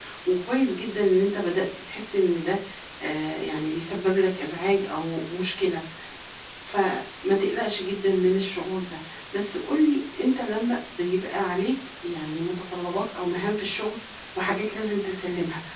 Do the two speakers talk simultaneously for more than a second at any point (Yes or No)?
No